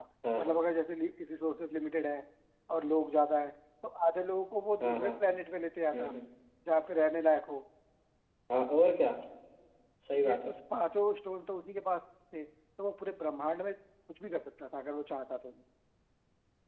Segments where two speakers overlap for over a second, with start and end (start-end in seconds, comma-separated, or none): none